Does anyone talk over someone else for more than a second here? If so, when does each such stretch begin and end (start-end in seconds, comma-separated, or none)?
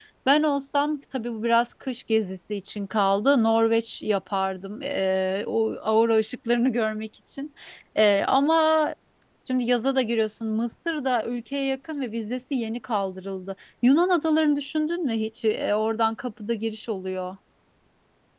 none